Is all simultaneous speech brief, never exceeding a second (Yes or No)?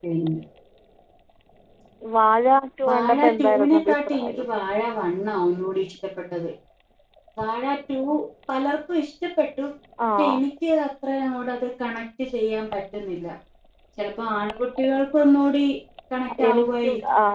No